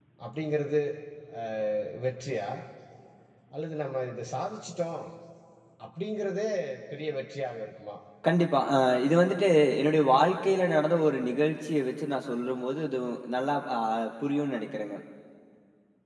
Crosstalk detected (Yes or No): No